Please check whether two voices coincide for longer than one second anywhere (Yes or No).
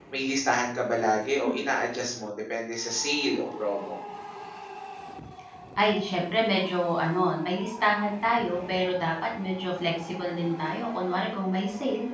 No